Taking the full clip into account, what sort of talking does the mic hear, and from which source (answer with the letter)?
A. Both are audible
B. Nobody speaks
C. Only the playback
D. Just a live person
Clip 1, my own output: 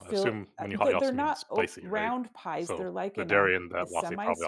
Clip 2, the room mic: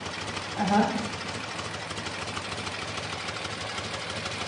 D